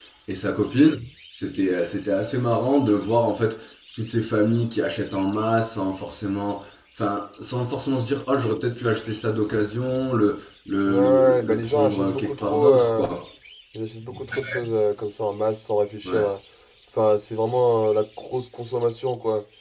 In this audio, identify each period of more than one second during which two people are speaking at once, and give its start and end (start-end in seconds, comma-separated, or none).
10.9-13.1